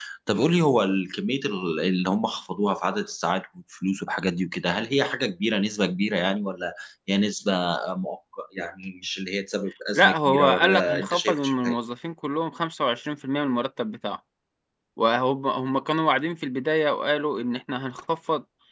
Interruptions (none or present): present